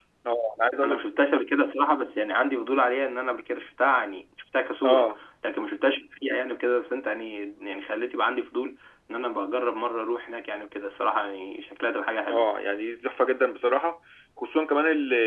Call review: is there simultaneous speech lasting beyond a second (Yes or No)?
No